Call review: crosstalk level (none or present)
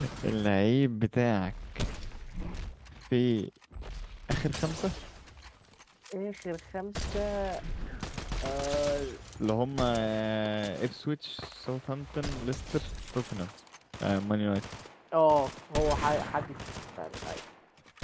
none